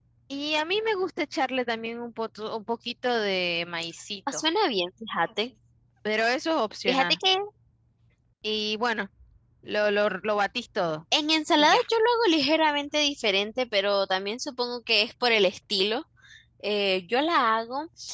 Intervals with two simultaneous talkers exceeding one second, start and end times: none

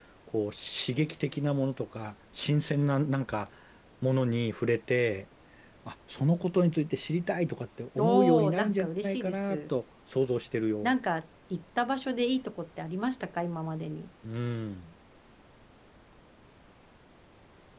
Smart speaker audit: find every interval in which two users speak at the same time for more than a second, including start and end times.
8.0-9.7

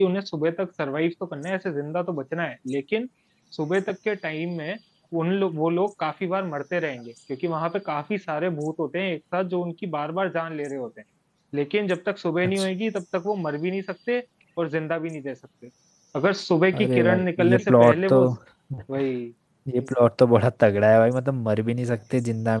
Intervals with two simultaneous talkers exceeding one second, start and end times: 16.8-18.2

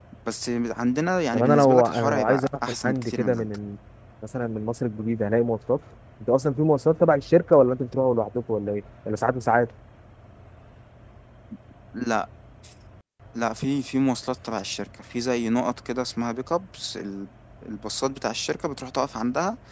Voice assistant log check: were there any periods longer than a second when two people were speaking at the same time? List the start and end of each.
1.3-3.5

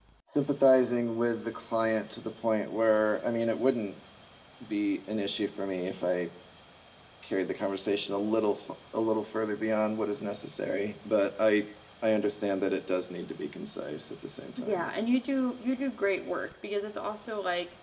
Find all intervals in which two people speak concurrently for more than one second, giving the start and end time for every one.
none

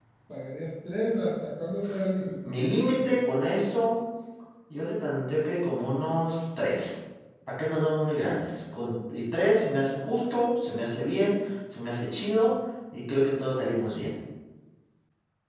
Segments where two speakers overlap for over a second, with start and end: none

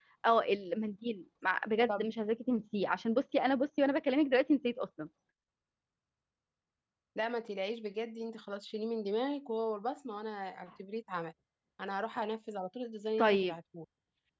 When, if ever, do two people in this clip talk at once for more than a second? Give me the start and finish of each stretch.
none

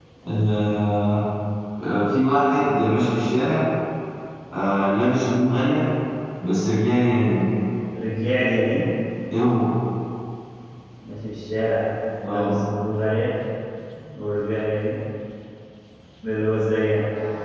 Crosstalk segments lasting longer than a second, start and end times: none

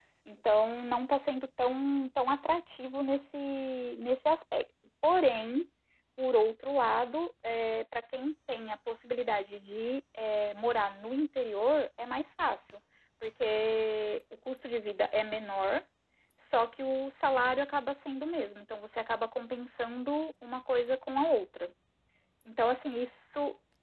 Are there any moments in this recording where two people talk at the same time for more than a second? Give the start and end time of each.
none

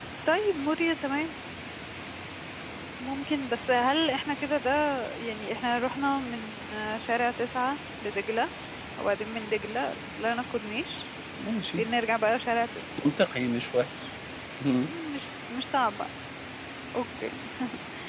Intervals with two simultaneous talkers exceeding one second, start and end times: none

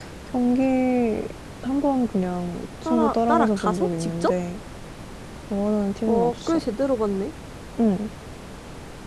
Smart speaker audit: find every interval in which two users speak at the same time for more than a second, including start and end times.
2.9-4.3

